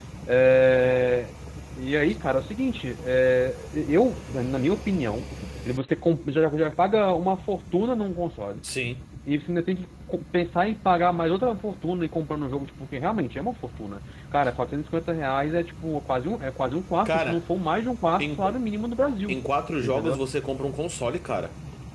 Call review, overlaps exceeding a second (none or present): none